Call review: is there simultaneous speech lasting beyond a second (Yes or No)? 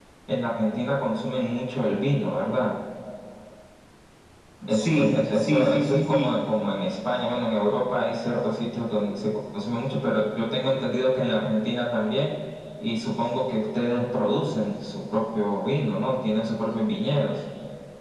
Yes